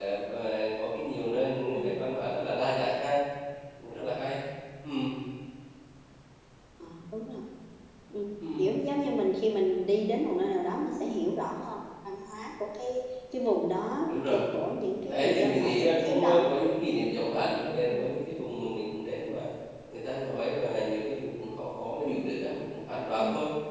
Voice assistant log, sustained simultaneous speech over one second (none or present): present